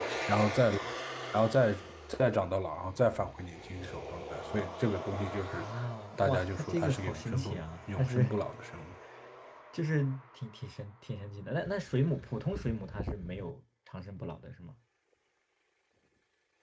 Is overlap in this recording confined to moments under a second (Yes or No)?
No